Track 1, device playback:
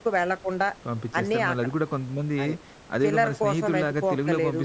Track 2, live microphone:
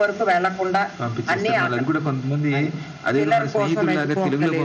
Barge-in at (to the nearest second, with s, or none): none